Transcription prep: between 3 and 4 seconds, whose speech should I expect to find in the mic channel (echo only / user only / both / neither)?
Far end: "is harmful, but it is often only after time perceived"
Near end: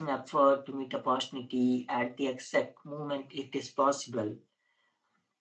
user only